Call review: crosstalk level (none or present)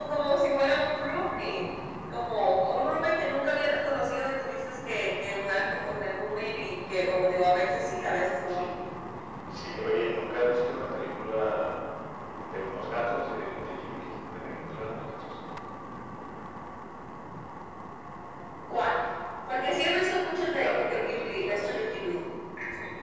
present